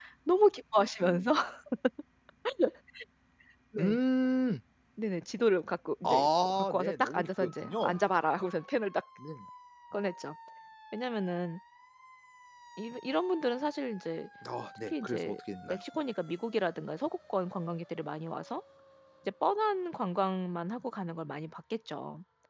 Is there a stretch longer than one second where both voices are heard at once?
Yes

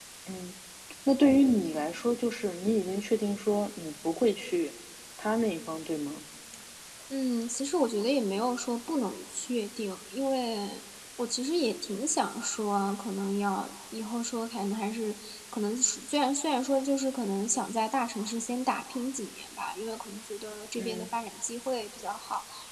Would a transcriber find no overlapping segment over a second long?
Yes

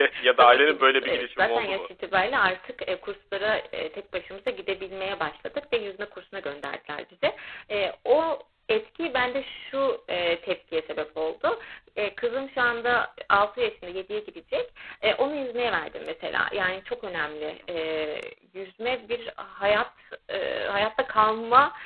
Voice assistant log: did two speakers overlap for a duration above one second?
Yes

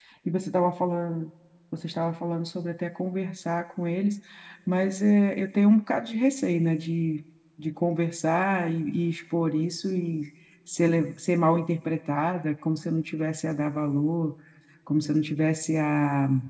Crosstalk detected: No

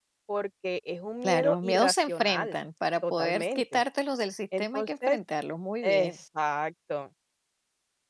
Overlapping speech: Yes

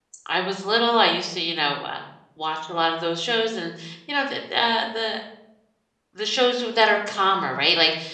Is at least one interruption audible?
No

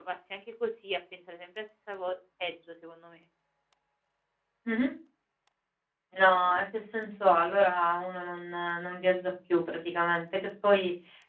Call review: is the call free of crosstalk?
Yes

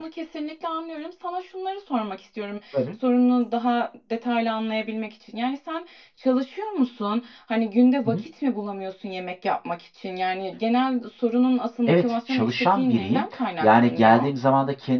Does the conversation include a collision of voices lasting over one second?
Yes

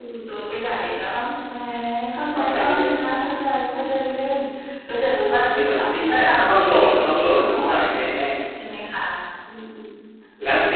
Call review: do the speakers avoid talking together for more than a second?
No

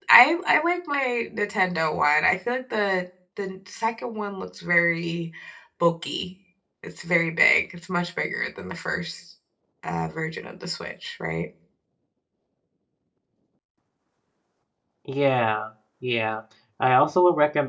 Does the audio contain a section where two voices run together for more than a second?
No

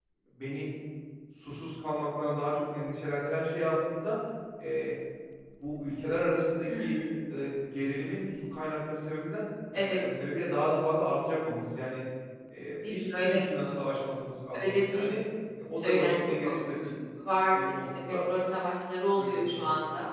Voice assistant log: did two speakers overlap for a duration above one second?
Yes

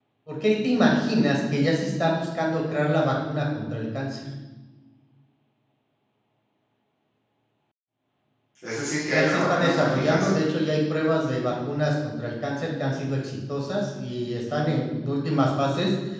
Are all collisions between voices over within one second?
No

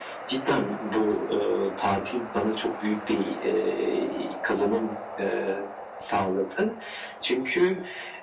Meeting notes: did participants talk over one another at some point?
No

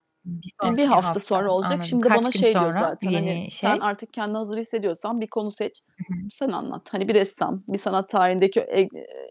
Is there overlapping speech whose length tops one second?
Yes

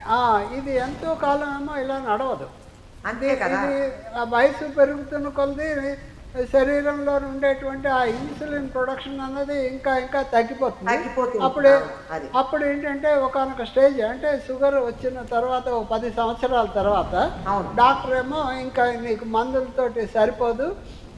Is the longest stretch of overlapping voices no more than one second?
Yes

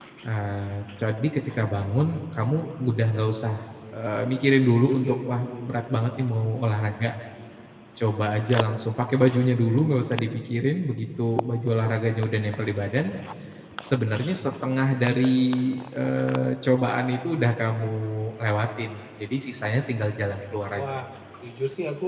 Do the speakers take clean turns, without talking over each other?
No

